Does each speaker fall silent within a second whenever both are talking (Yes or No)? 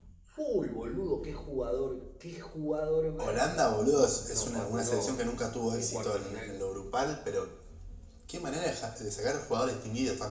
No